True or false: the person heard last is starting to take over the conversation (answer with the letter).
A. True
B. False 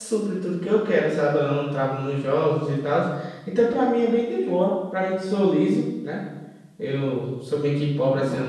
B